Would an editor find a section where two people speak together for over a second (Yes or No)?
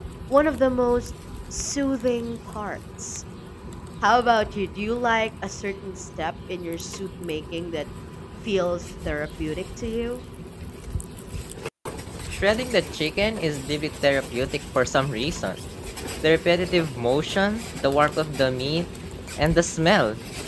No